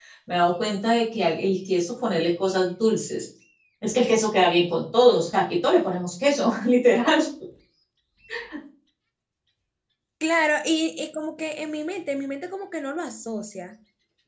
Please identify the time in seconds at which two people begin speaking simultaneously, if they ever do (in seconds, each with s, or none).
none